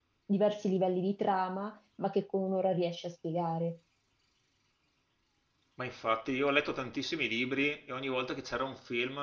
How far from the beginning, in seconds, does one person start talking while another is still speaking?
none

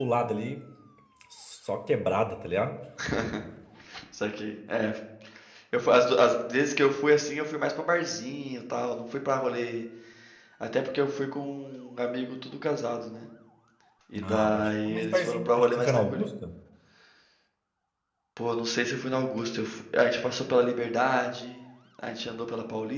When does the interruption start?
14.2 s

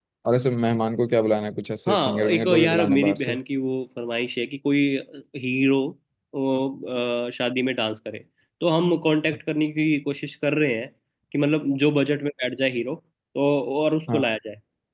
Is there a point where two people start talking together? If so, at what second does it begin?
1.9 s

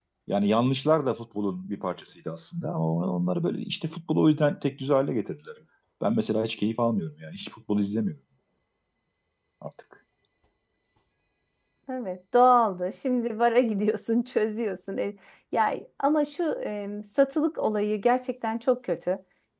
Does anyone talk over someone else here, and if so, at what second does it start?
none

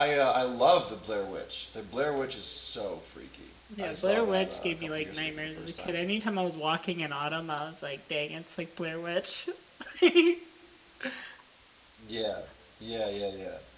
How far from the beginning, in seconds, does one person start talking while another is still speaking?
3.7 s

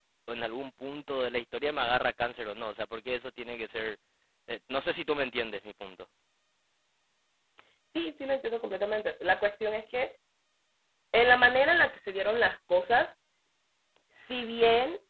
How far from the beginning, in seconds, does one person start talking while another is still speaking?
none

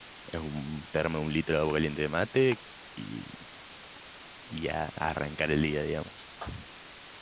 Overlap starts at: none

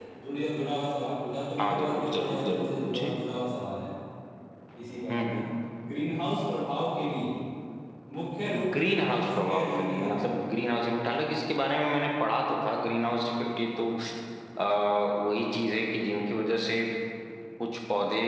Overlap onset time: 1.6 s

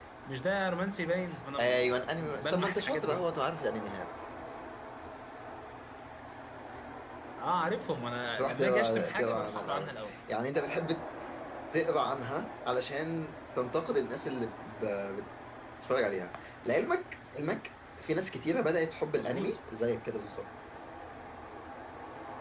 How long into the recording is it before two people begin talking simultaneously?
1.6 s

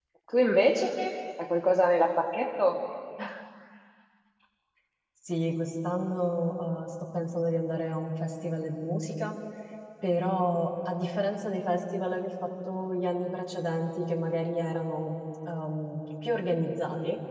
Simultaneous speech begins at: none

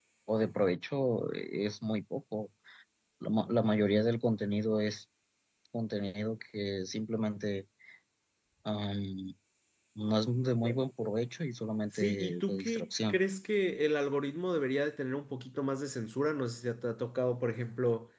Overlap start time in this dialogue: 11.9 s

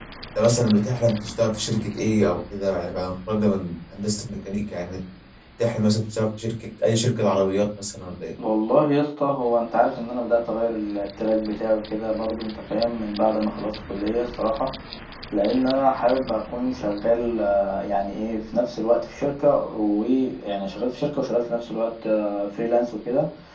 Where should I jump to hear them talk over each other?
none

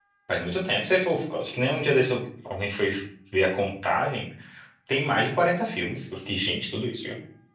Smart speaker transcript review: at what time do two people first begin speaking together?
none

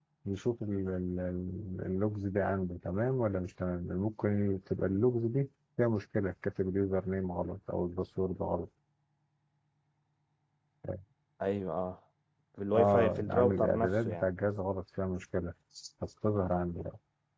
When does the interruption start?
12.7 s

